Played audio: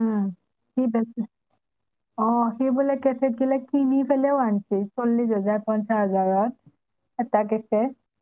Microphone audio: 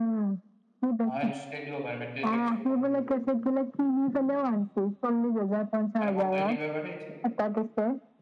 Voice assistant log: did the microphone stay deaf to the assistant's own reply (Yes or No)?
No